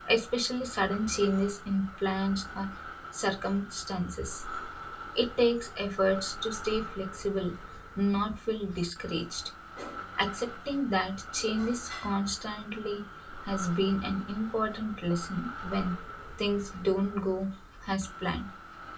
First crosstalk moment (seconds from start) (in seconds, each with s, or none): none